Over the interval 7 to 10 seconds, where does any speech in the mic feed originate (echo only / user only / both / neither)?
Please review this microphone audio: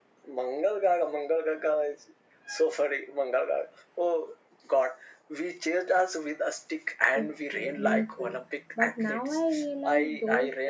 both